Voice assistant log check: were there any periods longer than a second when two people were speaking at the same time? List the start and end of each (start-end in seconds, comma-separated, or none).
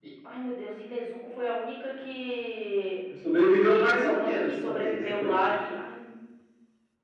3.6-5.6